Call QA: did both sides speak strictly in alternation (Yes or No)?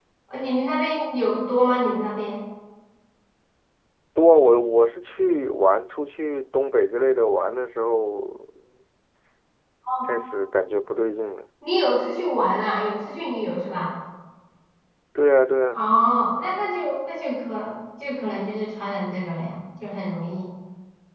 Yes